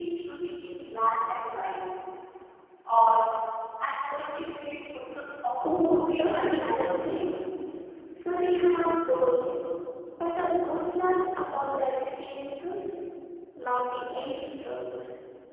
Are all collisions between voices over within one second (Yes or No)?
No